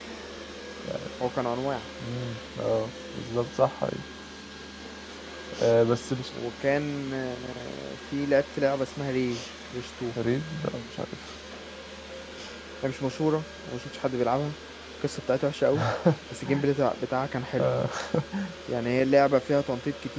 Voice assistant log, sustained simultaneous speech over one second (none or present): none